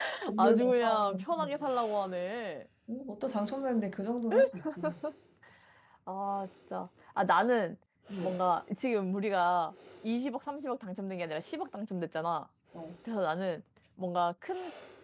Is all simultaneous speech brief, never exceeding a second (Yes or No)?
No